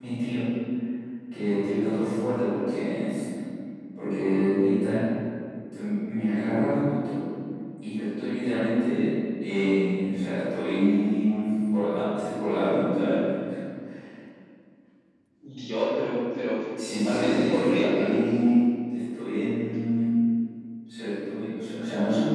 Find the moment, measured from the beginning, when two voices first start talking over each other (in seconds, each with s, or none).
16.8 s